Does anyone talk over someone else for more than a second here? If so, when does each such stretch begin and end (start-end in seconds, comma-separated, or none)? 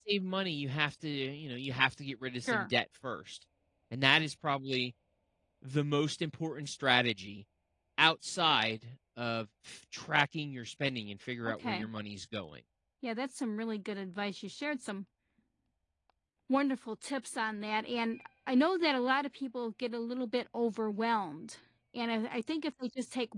none